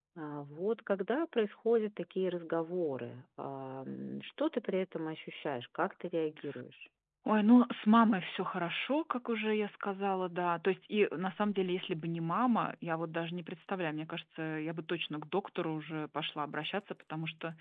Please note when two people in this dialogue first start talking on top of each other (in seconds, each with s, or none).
none